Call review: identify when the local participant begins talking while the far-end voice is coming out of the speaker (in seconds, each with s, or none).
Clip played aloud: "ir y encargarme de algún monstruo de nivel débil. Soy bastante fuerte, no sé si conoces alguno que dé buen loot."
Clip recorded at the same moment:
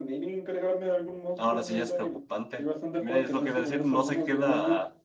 1.4 s